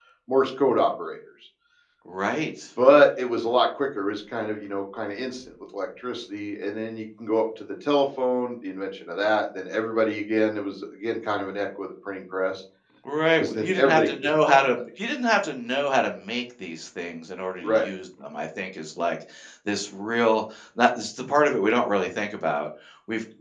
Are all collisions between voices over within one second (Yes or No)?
No